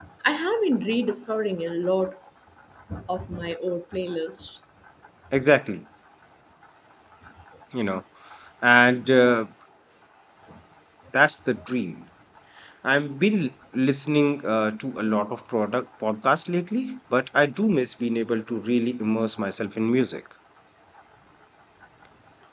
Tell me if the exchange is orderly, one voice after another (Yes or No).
Yes